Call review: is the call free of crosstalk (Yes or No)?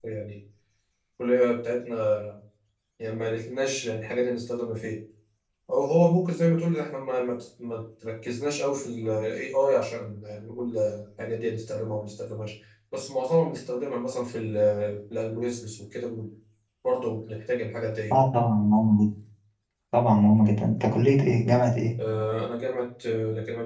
Yes